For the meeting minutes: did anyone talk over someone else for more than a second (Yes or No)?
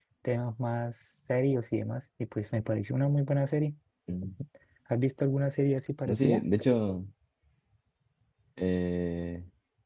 No